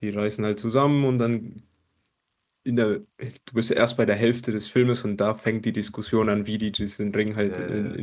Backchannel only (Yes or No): Yes